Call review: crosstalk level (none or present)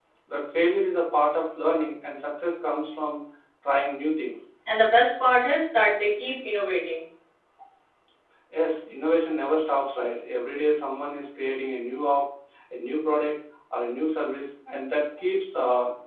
none